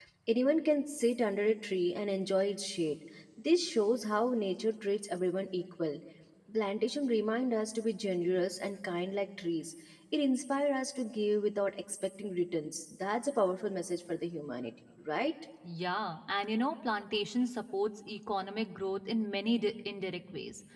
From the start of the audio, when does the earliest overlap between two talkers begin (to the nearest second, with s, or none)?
none